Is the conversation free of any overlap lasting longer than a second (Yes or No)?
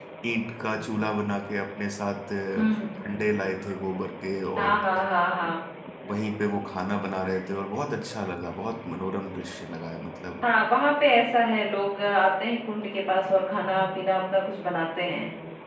Yes